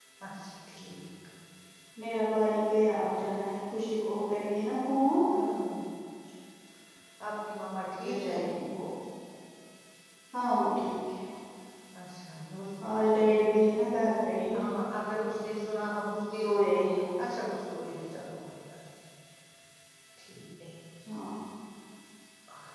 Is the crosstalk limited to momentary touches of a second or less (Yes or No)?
Yes